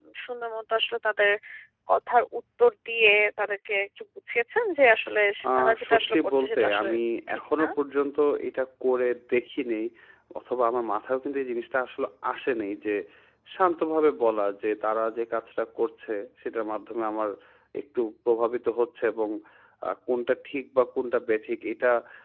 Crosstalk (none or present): present